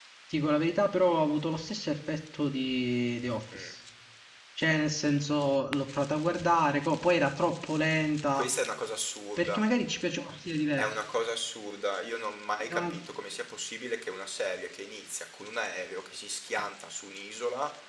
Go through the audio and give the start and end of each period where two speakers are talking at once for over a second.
none

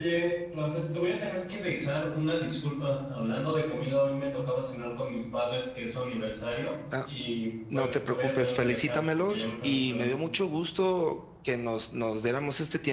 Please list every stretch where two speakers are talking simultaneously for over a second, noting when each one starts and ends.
7.7-10.2

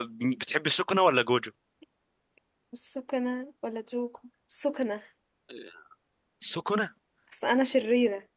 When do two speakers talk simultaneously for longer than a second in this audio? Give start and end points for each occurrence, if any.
none

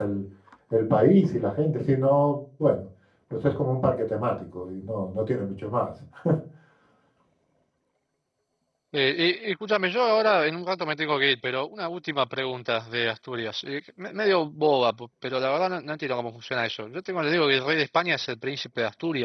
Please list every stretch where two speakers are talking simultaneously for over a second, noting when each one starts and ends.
none

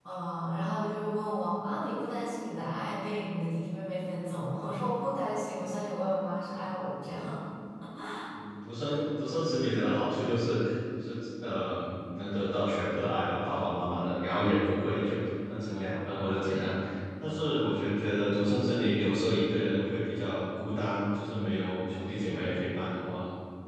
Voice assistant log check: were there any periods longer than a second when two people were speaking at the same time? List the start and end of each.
none

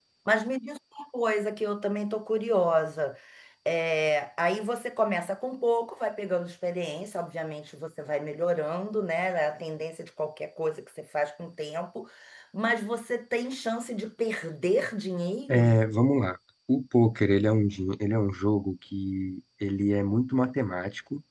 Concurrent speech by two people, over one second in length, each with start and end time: none

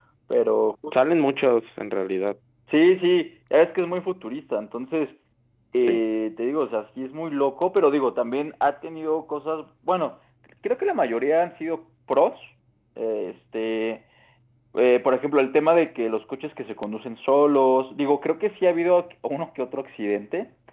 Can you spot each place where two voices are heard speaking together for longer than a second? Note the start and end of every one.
none

